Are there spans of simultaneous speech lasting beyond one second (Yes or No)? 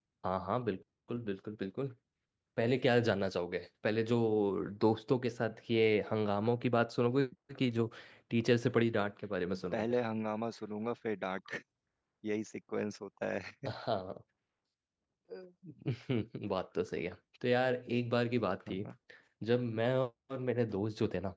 No